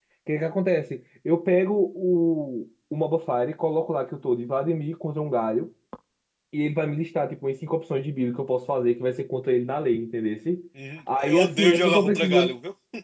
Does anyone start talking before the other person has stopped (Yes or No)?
Yes